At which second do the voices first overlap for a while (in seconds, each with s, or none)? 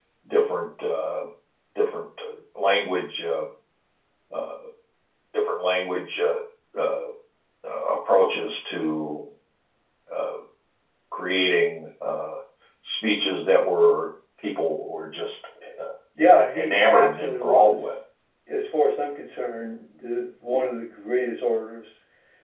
16.2 s